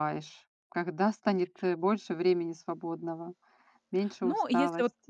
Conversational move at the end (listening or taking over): taking over